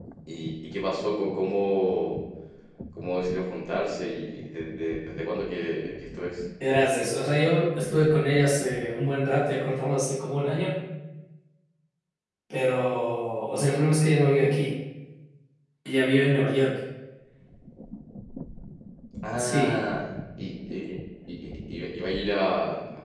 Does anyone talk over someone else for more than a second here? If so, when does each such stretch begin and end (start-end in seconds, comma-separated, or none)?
none